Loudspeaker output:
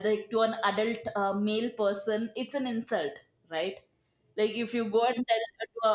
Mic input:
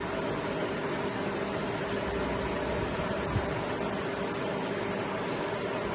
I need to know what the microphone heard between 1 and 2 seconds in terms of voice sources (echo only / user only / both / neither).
neither